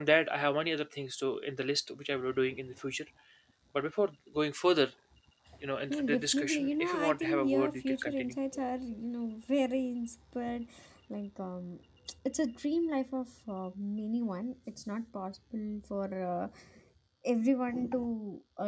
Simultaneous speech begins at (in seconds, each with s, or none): 5.9 s